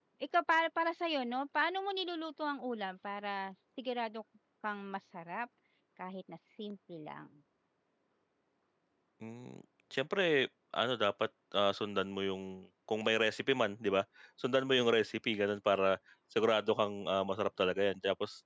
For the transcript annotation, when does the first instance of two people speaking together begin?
none

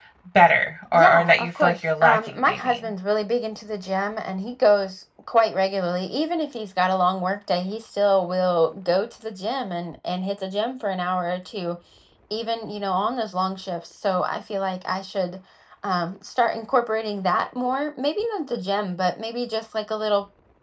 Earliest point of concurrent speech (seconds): 0.9 s

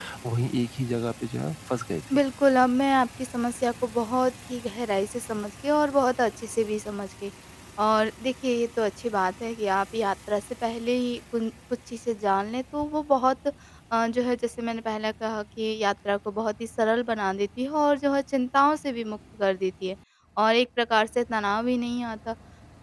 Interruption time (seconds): none

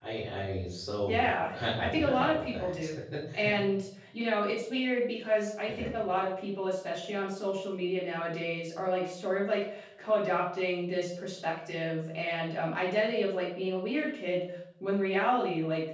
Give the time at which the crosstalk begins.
1.1 s

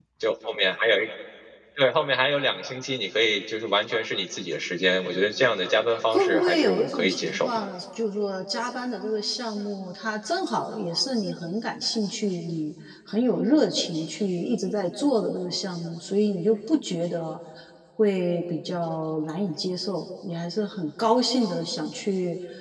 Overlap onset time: 6.1 s

